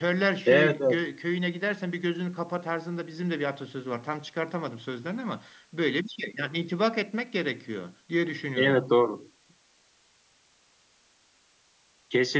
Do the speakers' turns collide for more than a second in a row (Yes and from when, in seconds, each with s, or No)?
No